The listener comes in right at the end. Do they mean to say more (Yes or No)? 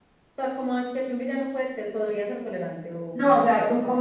Yes